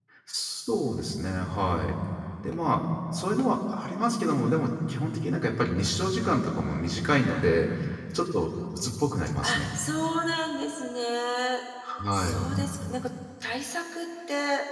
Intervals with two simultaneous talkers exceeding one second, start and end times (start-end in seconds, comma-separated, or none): none